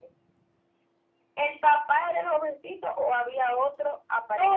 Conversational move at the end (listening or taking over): taking over